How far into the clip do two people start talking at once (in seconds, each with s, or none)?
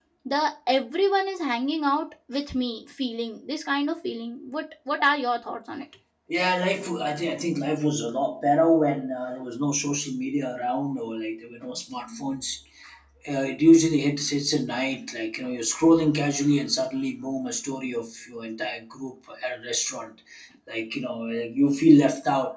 none